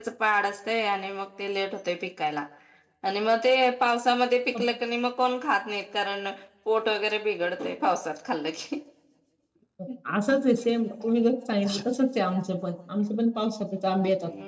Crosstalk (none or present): none